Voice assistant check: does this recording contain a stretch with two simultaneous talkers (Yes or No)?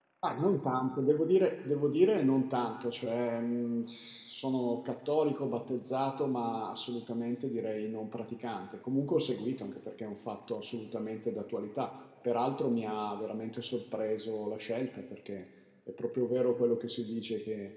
No